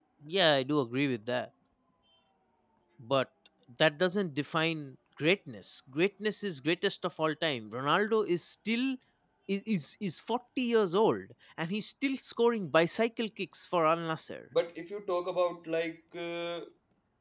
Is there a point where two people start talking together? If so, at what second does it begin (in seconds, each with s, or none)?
none